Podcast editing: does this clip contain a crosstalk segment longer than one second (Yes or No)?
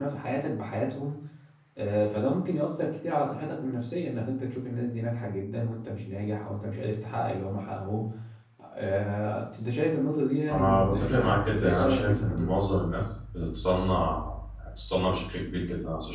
Yes